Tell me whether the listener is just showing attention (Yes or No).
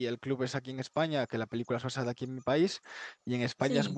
Yes